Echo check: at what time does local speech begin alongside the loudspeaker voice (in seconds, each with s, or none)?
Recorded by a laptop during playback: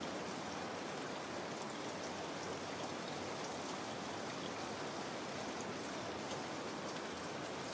none